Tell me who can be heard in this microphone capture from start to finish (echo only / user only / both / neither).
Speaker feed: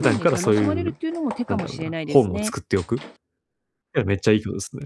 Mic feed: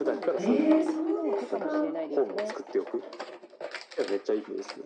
both